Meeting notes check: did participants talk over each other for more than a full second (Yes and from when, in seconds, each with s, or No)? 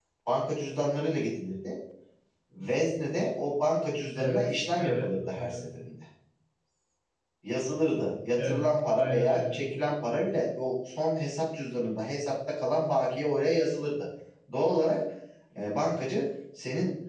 Yes, from 4.2 s